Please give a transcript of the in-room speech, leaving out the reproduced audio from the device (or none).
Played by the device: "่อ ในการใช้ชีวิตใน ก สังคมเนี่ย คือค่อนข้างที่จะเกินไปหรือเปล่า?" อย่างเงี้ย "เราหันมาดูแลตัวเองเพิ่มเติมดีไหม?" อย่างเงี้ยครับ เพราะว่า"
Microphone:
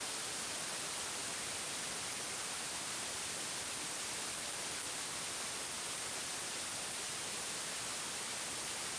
none